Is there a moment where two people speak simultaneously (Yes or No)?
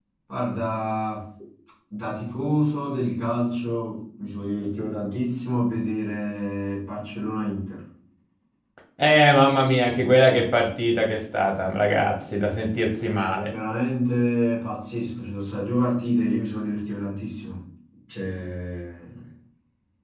No